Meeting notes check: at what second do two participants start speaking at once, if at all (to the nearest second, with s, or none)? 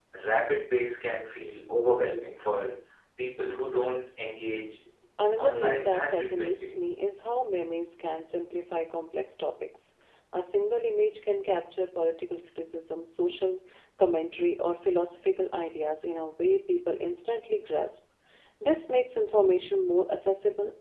5 s